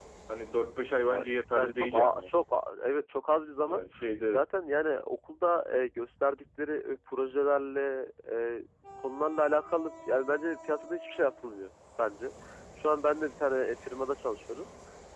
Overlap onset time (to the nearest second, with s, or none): 1 s